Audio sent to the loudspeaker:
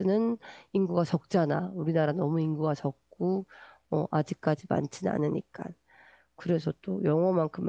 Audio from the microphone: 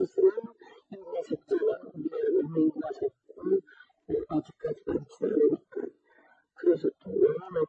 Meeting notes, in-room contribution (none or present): none